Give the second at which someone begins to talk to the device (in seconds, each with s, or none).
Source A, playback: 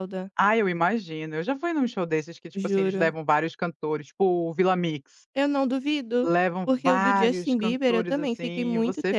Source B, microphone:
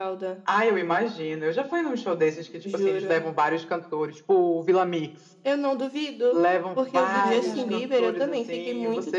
7.1 s